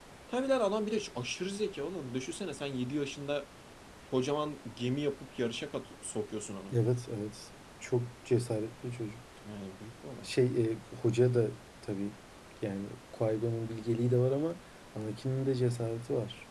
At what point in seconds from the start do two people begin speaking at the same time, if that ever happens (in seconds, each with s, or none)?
none